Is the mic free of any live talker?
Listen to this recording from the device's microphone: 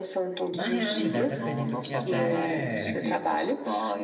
No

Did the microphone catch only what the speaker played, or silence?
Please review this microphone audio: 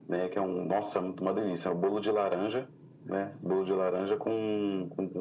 Yes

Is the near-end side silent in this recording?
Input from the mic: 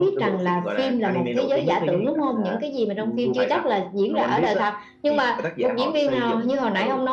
Yes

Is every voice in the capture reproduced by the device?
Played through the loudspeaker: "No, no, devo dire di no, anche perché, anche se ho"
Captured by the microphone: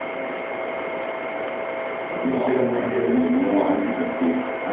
No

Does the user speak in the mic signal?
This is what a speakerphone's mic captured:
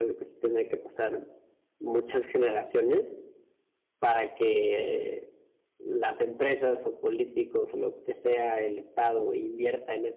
No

